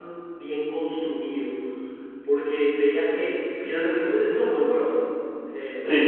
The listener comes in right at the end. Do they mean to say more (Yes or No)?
No